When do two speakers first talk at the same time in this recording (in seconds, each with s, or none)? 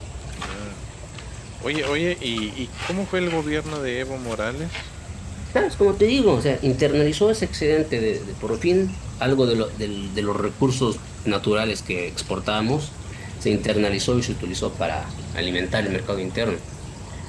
none